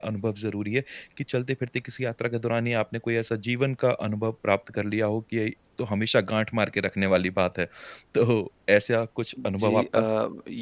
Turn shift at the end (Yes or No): Yes